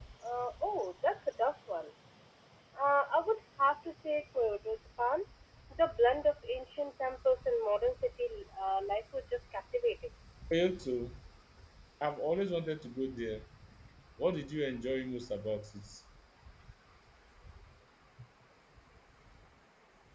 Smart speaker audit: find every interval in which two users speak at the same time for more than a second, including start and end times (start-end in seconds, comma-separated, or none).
none